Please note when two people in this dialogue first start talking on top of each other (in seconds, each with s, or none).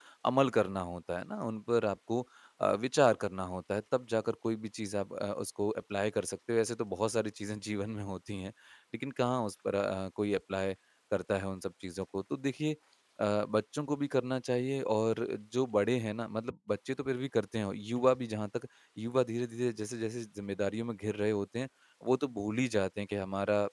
none